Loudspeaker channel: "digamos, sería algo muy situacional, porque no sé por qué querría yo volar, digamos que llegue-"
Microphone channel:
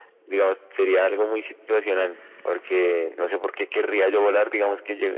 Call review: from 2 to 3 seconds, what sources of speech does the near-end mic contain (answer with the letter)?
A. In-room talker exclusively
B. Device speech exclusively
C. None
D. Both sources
B